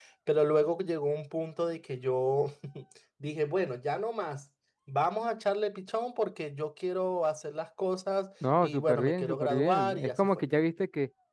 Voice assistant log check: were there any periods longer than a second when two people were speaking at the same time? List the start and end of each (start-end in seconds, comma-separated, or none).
8.6-10.3